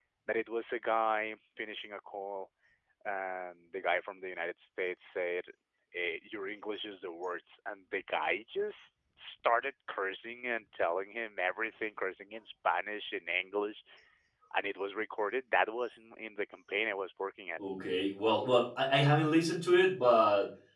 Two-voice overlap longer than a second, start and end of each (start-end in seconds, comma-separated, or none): none